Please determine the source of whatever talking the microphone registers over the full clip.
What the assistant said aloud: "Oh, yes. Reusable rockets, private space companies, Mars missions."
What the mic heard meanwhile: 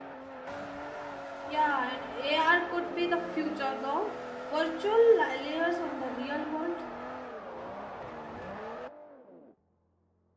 user only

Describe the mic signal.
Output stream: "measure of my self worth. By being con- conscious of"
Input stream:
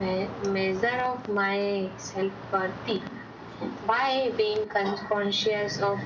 echo only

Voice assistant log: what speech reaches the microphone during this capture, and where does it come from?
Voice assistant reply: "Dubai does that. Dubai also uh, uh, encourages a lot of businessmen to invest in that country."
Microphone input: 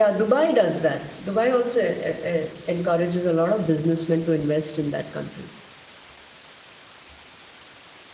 echo only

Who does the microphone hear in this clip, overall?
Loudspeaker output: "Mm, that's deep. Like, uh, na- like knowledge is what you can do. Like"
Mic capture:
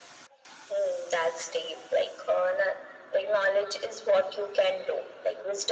echo only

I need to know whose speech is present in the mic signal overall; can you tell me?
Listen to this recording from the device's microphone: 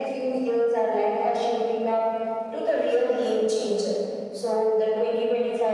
echo only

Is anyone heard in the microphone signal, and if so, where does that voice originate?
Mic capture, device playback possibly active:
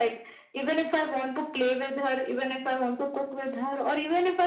echo only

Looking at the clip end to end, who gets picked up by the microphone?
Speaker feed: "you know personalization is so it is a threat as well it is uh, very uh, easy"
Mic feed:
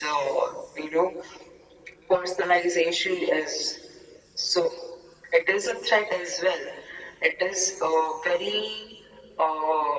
echo only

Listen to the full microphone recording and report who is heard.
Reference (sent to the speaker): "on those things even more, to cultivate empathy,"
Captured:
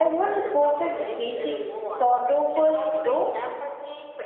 both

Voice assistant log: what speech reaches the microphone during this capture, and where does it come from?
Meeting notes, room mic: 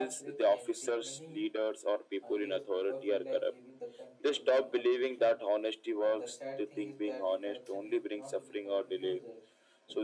both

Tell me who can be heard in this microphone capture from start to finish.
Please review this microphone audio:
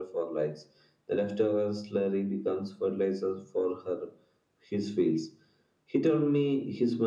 echo only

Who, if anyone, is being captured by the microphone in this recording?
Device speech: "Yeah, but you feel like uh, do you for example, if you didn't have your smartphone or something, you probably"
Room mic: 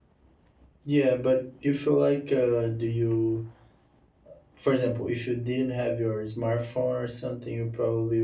echo only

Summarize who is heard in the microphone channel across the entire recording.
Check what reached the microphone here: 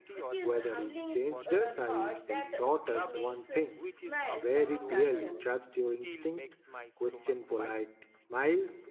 both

